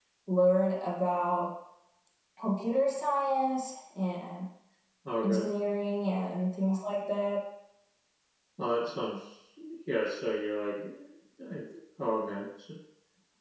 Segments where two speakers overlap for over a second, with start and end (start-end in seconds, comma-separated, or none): none